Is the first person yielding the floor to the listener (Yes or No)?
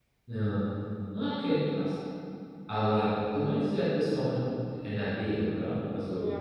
Yes